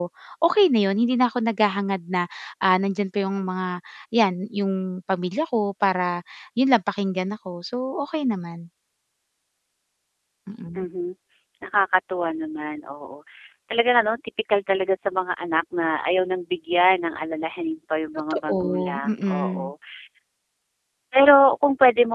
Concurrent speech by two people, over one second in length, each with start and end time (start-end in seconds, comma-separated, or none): 18.3-19.7